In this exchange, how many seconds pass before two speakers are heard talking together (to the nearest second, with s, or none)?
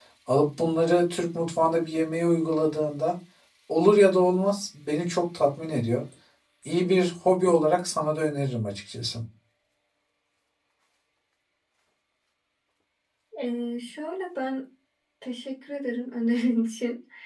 none